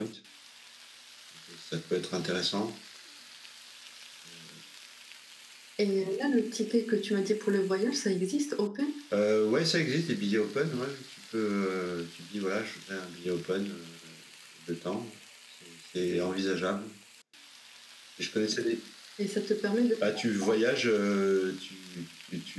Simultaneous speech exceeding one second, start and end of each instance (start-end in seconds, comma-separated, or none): none